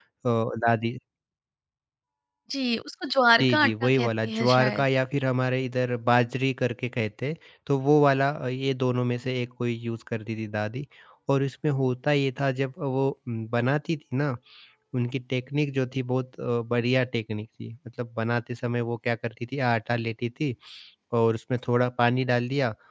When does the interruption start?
3.4 s

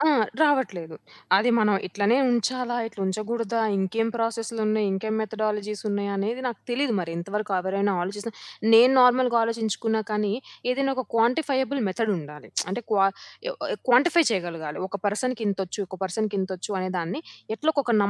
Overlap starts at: none

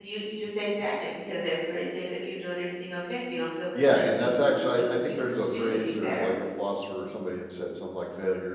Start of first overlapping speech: 3.8 s

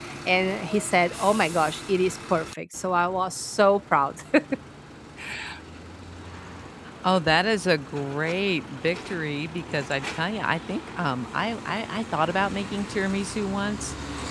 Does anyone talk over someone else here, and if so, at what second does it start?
none

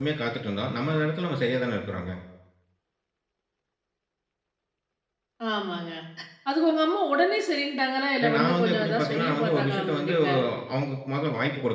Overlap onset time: 8.2 s

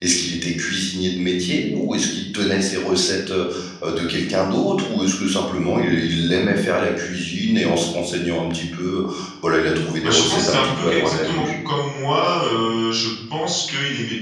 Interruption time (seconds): 10.0 s

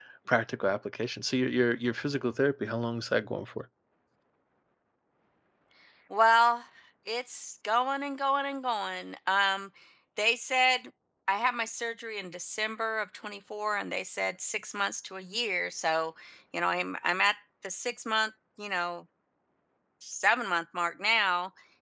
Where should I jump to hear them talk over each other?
none

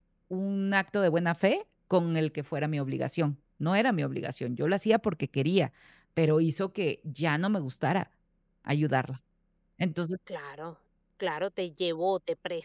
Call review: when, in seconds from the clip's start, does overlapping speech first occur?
none

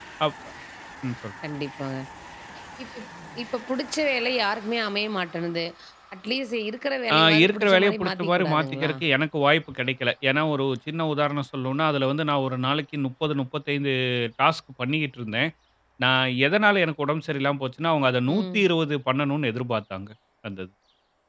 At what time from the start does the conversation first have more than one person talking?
7.1 s

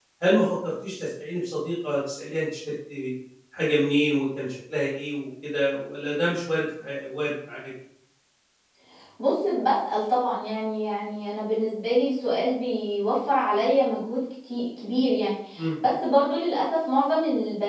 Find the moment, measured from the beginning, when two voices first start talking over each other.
none

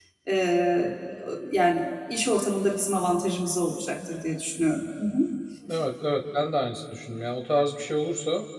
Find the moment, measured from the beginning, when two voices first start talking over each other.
none

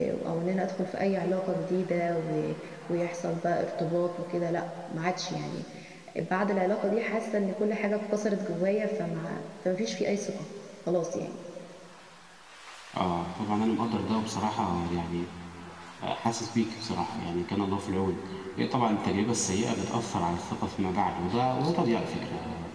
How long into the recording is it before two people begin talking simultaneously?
none

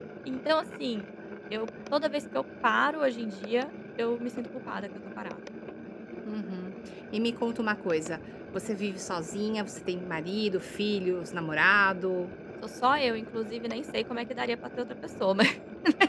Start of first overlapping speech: none

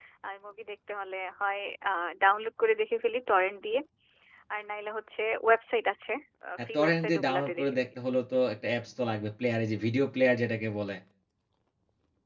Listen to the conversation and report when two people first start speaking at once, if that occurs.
6.7 s

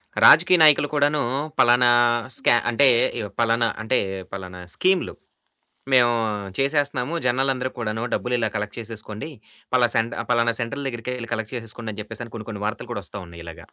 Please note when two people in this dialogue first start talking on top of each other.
none

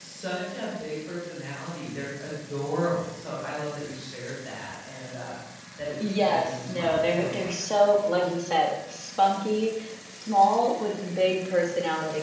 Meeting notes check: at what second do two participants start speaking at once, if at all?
6.0 s

